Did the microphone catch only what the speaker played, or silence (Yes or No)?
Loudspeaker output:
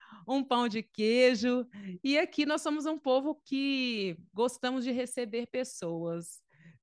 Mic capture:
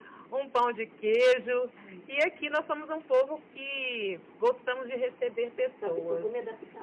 No